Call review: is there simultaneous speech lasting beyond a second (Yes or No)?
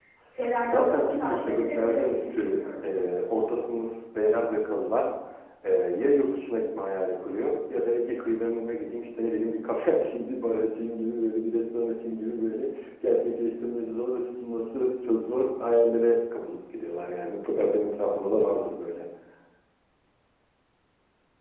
Yes